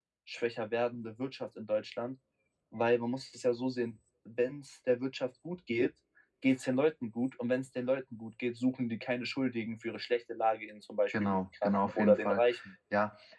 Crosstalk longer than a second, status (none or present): present